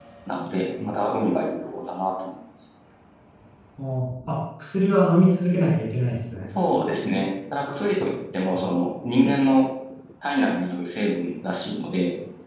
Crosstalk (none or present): none